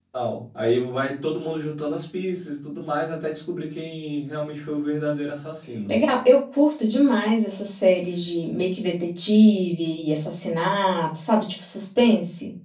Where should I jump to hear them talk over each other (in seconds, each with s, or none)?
none